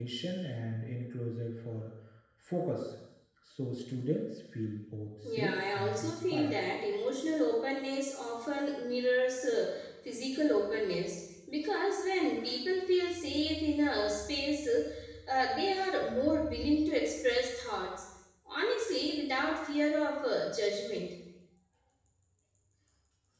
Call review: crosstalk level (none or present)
present